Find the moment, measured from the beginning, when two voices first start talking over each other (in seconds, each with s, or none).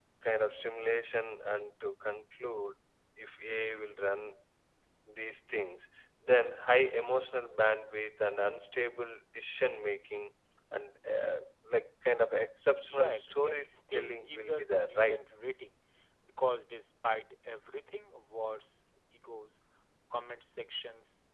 12.9 s